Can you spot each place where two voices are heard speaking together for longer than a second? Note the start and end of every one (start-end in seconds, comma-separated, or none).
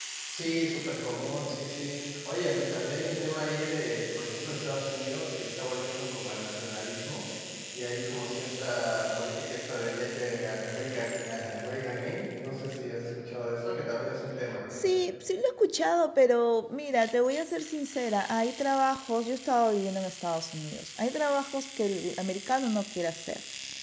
none